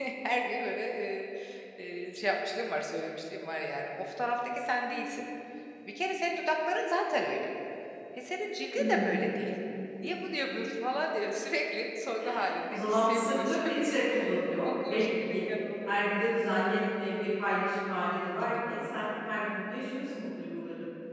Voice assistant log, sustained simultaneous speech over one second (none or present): present